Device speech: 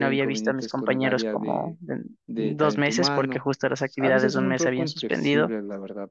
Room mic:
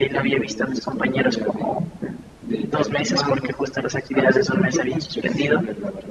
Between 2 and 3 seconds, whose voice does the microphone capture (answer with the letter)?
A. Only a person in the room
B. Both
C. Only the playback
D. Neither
C